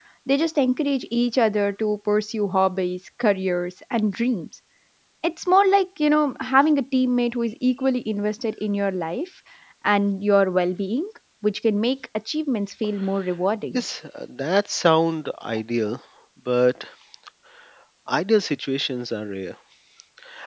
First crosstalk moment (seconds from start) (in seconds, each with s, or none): none